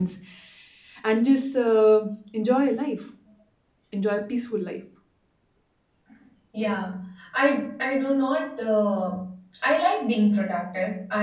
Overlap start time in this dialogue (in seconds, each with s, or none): none